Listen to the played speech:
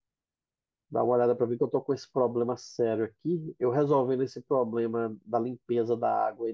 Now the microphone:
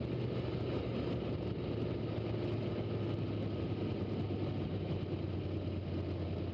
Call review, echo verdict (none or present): none